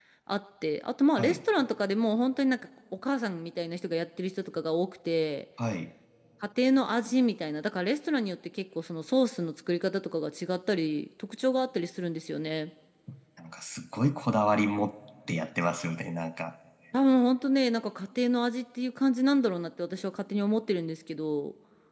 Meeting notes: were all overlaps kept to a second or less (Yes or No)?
Yes